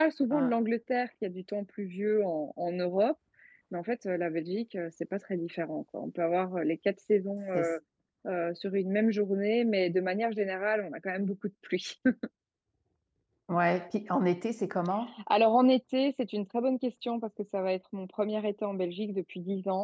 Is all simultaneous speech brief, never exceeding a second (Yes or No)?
Yes